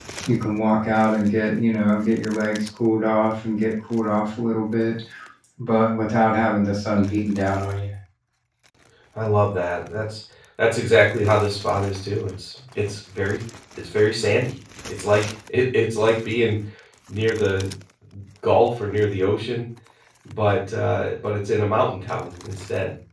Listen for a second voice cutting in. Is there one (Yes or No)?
No